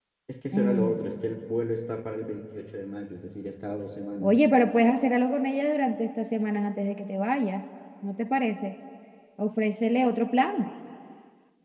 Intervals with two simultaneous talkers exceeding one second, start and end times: none

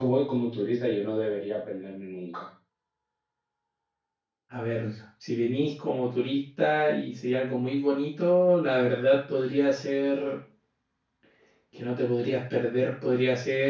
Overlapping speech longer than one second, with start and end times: none

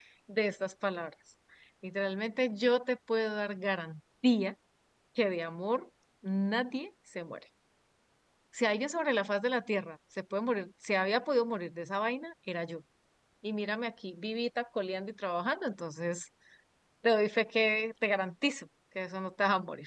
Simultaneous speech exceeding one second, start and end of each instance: none

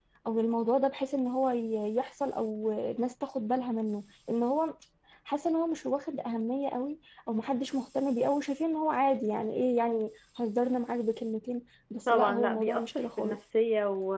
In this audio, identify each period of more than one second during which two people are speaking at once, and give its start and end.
12.1-13.4

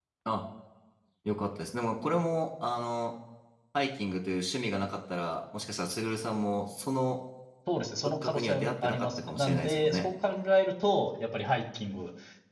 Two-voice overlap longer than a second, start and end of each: 8.2-10.1

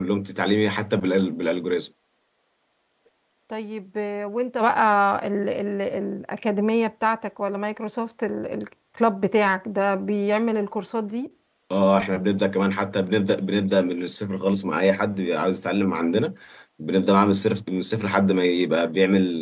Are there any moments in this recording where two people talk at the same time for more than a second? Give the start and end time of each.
none

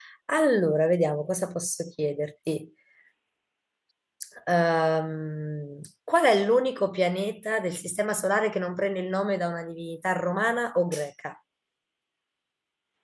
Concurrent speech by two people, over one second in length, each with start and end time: none

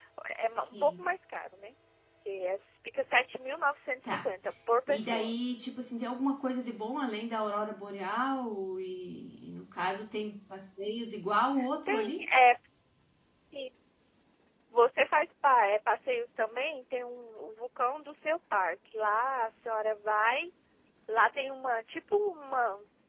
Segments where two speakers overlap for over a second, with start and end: none

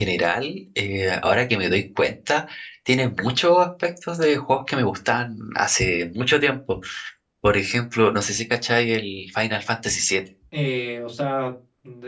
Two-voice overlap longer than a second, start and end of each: none

